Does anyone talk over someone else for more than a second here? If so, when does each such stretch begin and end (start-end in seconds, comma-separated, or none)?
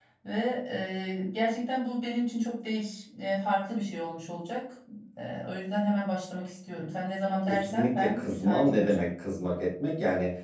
7.5-9.1